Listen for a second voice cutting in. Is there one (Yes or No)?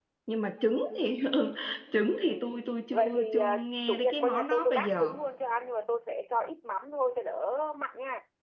Yes